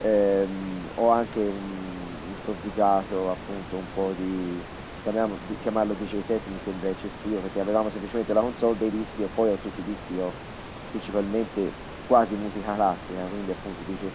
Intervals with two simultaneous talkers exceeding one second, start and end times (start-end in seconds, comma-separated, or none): none